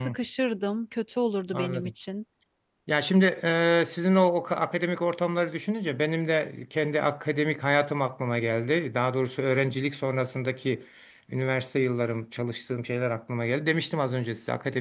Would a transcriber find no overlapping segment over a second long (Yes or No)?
Yes